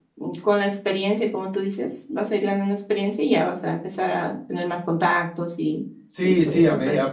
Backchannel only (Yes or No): No